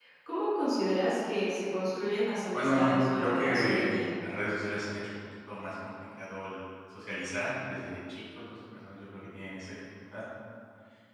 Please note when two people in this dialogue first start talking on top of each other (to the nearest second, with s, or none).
3 s